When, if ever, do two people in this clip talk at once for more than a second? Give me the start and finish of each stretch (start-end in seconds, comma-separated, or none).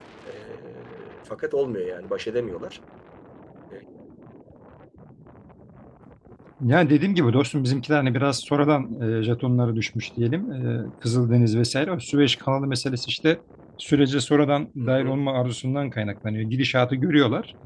none